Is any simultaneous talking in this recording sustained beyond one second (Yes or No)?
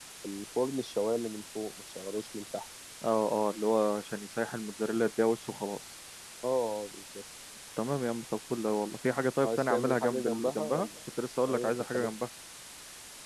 Yes